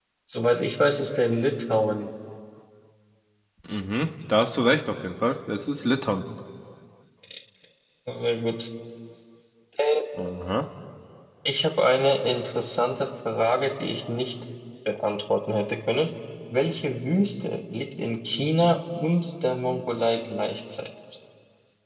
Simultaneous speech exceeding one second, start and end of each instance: none

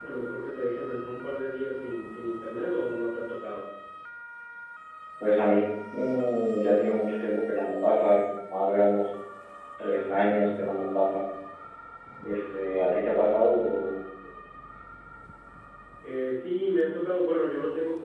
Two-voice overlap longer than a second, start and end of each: none

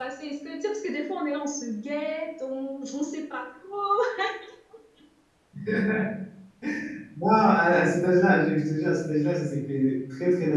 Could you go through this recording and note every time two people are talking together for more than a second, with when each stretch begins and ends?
none

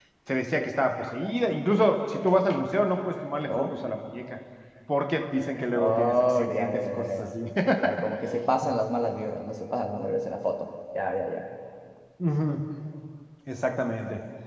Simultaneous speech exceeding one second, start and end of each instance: 5.7-7.3

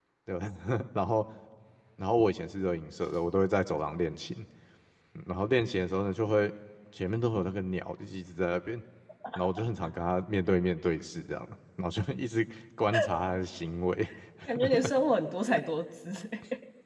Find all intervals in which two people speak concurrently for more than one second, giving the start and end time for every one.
none

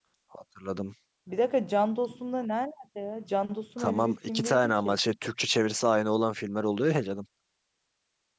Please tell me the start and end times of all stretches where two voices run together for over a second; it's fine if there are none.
3.8-5.0

